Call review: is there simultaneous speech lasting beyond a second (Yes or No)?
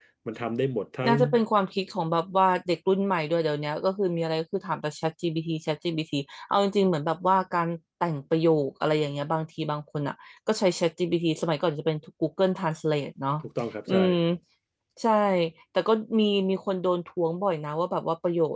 No